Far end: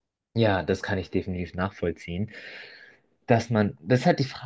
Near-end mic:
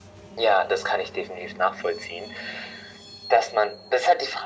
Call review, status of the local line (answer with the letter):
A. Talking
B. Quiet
B